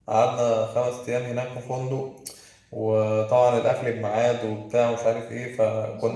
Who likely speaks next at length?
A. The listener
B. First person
A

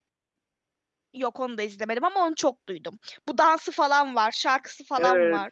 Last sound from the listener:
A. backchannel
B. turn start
B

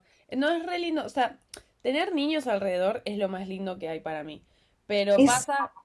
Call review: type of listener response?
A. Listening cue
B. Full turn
A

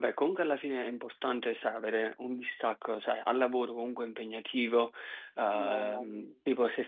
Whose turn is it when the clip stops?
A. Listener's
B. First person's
B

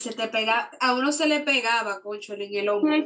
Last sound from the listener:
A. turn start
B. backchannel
A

